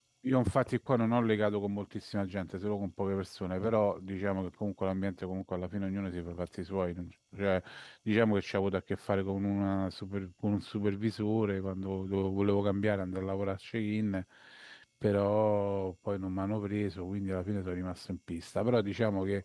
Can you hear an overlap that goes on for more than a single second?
No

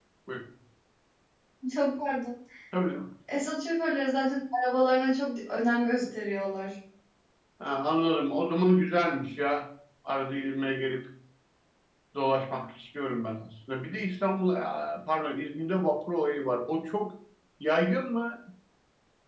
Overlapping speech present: No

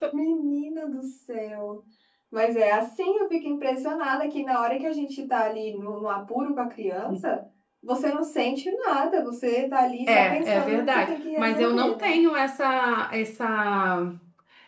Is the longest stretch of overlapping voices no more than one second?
No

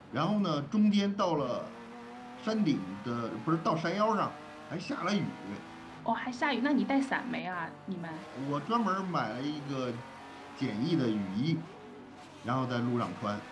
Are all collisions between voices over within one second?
Yes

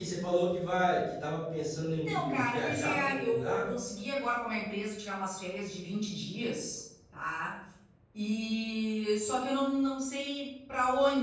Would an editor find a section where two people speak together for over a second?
Yes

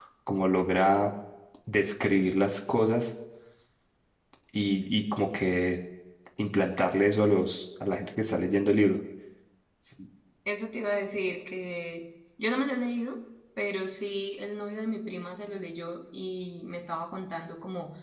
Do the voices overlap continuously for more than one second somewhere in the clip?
No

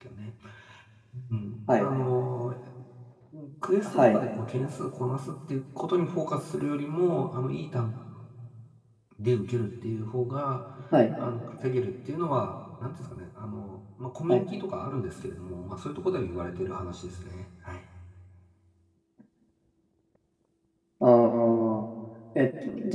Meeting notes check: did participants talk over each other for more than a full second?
No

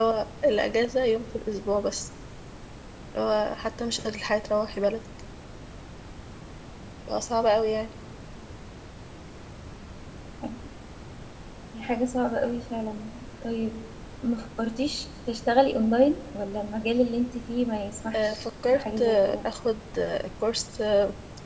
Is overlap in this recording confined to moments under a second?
No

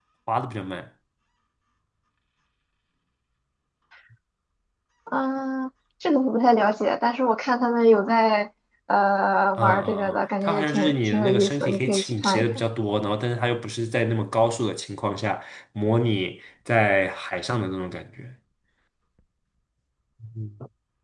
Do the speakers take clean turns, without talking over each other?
No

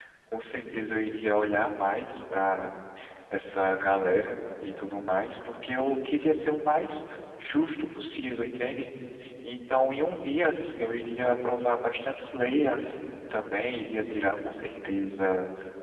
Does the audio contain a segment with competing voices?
No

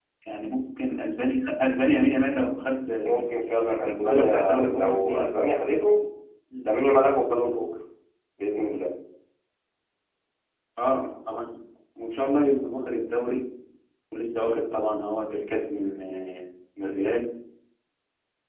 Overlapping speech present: Yes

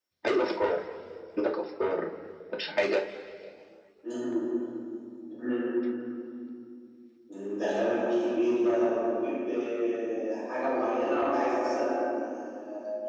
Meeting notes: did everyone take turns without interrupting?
Yes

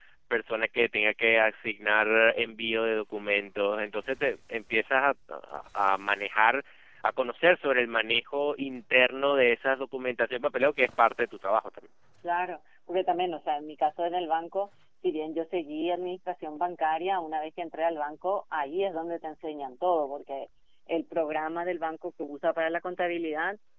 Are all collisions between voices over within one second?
Yes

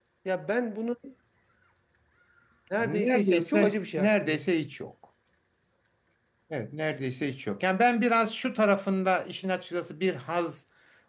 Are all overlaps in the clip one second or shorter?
No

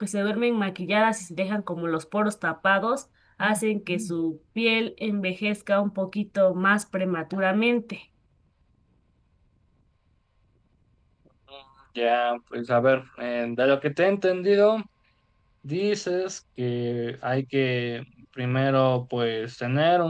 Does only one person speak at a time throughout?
Yes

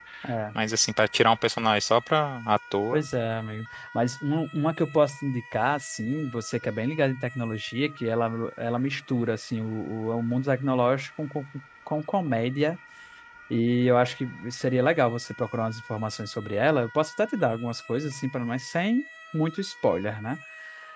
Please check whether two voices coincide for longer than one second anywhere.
No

